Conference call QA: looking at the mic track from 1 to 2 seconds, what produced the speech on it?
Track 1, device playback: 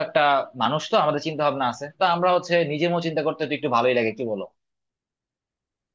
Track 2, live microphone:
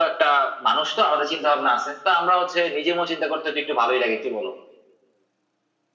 echo only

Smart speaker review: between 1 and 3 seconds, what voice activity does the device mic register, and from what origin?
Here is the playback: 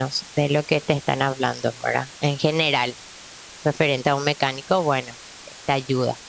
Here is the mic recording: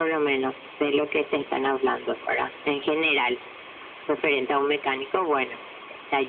echo only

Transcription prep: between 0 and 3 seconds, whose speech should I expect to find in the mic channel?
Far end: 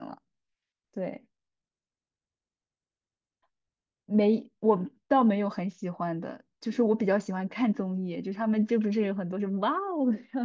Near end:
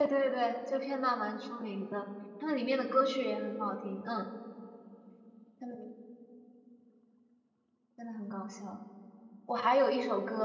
user only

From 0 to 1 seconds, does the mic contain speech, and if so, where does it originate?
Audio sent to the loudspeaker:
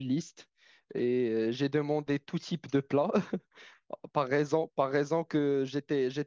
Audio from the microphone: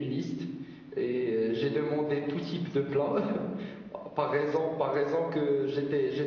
echo only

